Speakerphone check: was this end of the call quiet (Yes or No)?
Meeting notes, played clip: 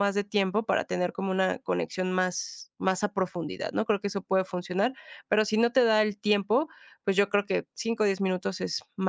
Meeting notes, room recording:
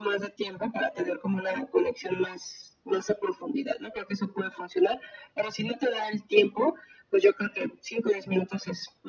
Yes